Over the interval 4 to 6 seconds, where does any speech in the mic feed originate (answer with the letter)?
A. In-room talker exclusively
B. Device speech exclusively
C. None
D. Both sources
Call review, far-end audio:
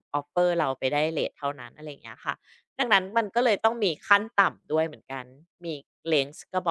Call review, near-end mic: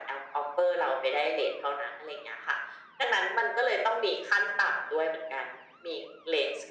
B